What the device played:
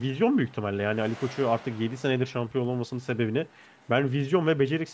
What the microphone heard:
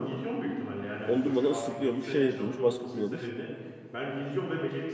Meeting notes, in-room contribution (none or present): present